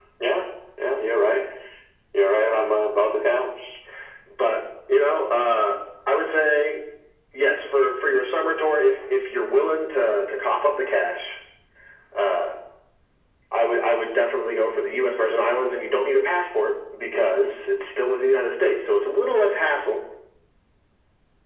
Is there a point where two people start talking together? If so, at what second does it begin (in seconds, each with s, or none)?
none